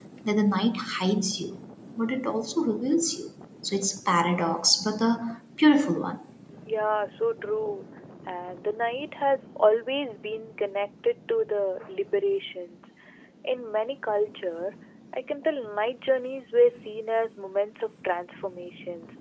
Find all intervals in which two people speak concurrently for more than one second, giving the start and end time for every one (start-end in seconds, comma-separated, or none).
none